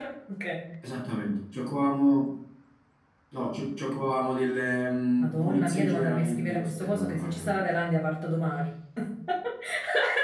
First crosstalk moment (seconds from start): 5.2 s

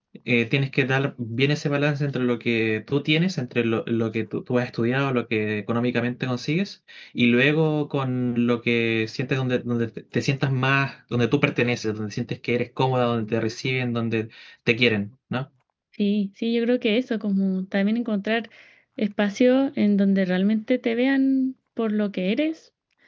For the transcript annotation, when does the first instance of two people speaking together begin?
none

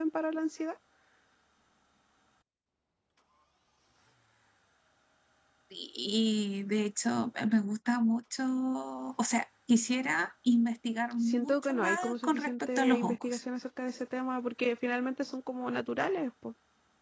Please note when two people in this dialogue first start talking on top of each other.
11.2 s

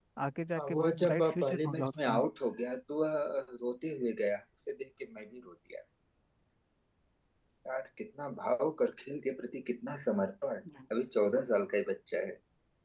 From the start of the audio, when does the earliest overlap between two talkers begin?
0.6 s

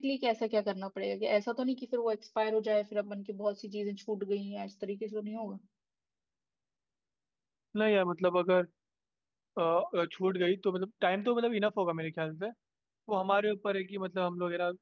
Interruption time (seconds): none

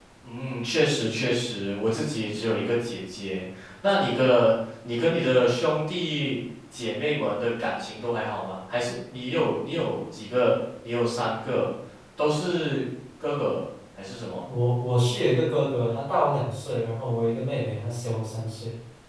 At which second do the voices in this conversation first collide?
none

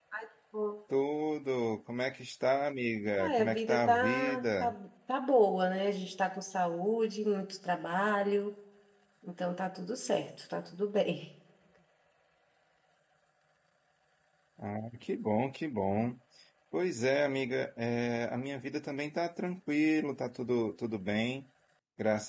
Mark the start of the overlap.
3.2 s

